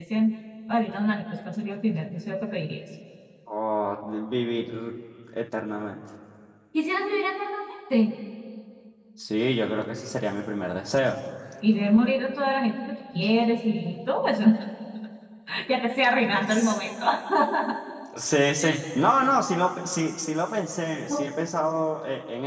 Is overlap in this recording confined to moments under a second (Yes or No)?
Yes